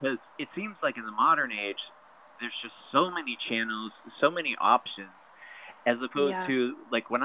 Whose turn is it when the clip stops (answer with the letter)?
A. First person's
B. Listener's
A